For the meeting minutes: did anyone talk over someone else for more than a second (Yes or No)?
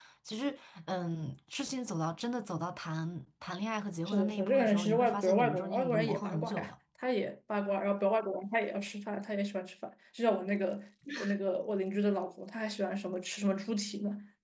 Yes